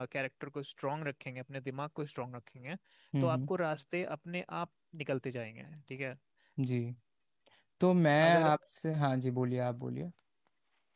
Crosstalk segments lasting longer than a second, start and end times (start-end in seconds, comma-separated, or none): none